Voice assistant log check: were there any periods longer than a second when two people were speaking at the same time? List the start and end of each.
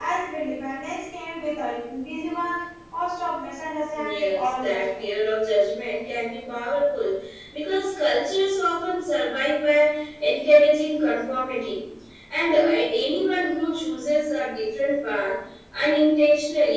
3.9-5.1

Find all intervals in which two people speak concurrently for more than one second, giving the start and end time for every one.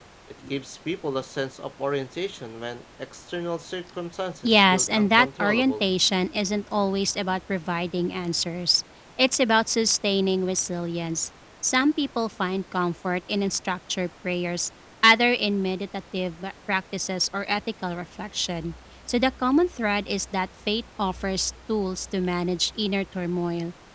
4.4-5.8

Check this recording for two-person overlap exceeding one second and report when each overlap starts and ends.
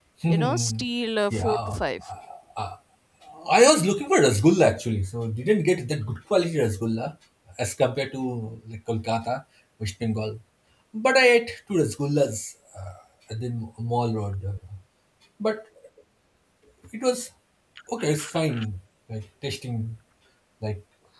none

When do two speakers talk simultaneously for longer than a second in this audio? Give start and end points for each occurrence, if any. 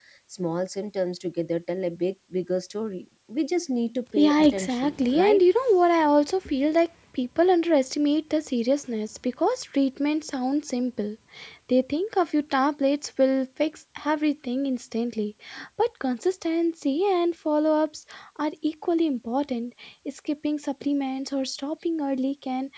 4.2-5.4

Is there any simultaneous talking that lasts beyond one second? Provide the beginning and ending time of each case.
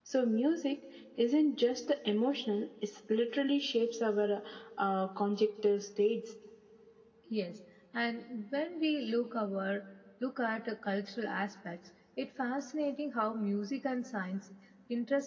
none

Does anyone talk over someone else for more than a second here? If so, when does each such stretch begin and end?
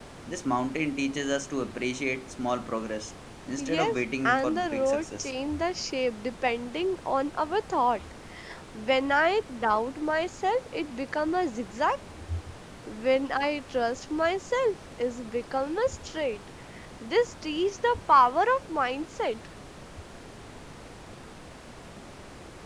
3.6-5.3

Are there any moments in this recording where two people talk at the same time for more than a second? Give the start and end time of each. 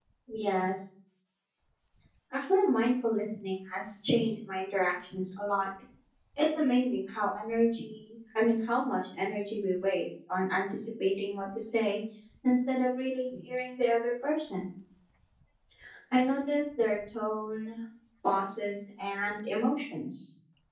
none

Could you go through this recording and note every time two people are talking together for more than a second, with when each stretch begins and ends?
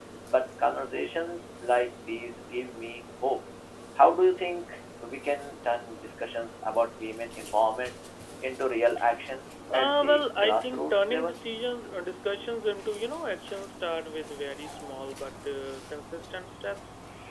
9.7-11.4

